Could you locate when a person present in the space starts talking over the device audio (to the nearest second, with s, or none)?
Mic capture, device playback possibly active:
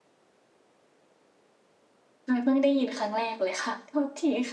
2 s